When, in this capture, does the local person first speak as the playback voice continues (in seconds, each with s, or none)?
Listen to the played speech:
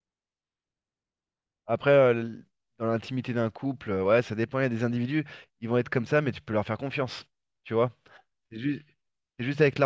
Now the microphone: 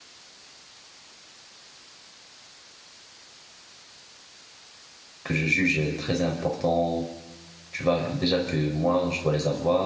5.2 s